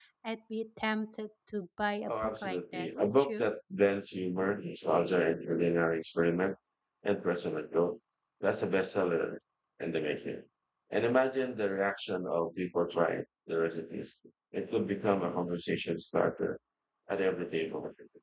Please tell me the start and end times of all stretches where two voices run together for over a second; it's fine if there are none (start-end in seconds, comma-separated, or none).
2.1-3.5